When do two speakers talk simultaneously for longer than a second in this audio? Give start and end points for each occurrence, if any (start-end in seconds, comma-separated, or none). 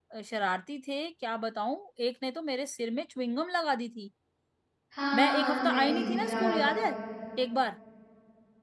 5.1-6.6